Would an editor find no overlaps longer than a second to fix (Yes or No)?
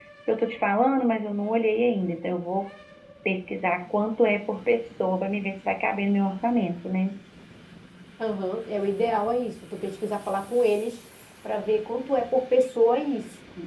Yes